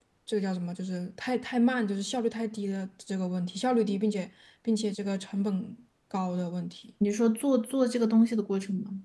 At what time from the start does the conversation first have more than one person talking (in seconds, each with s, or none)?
none